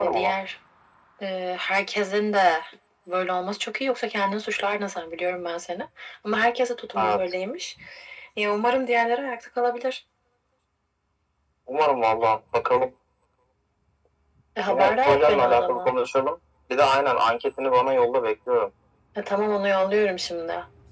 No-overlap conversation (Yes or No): No